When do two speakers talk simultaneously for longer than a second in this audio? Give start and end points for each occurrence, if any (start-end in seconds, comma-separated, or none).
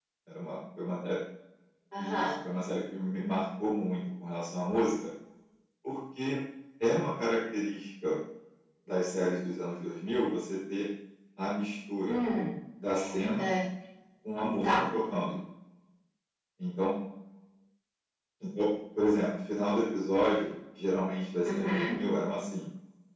none